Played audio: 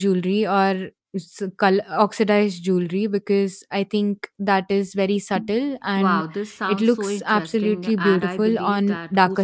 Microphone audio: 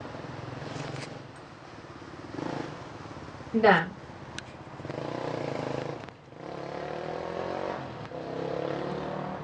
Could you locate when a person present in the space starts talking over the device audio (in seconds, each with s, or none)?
3.6 s